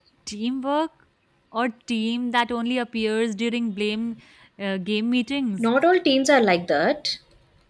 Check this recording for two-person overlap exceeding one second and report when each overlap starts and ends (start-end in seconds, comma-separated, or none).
none